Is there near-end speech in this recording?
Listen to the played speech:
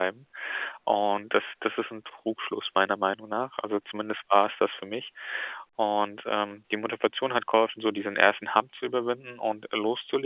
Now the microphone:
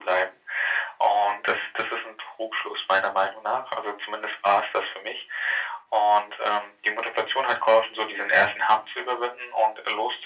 No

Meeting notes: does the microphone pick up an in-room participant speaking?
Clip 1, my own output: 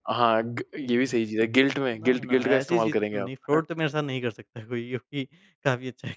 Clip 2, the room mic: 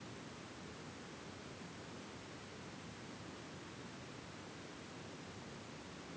No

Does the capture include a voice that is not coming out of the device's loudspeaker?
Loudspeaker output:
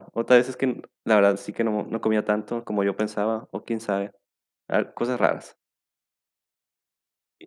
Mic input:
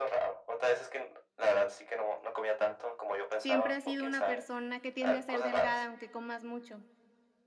Yes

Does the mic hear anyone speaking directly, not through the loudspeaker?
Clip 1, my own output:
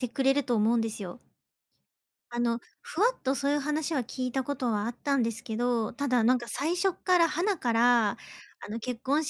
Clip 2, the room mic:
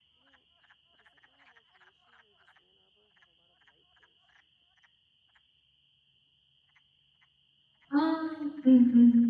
Yes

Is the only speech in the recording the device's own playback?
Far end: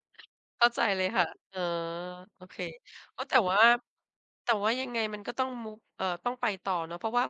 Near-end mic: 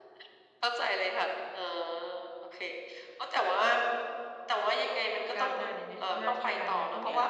No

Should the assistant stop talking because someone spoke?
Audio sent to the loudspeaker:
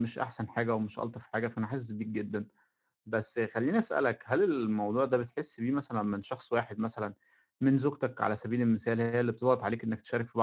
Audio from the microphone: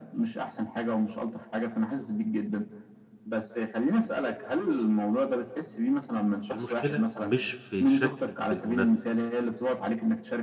Yes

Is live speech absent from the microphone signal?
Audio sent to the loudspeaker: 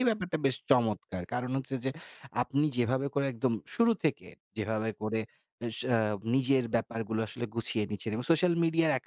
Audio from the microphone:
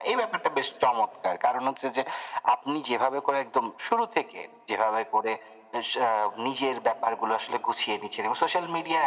Yes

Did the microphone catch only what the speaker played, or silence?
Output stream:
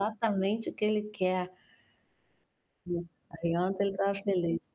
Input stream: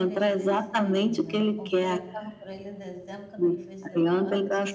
No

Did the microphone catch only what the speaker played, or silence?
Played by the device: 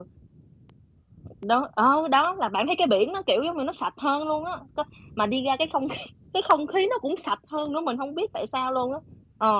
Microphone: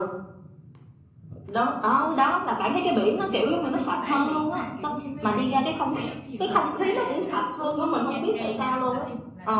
No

